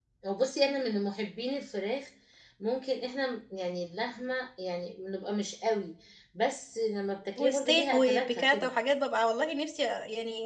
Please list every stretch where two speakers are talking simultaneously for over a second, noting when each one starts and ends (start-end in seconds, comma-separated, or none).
7.4-8.7